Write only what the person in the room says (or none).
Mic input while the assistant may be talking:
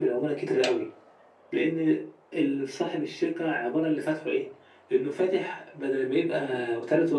none